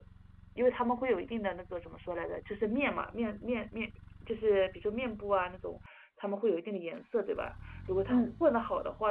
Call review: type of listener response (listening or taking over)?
listening